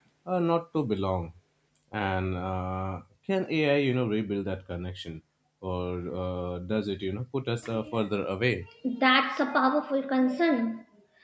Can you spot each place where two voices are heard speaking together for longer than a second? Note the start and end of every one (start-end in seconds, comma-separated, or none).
none